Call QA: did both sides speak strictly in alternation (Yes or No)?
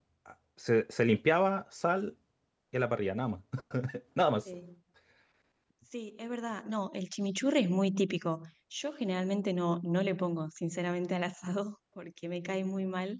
Yes